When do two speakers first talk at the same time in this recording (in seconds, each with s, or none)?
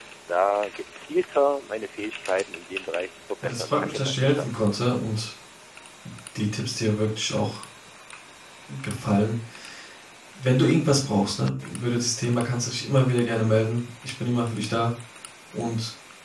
3.4 s